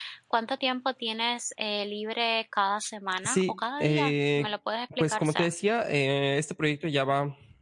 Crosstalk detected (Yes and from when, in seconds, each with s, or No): Yes, from 3.2 s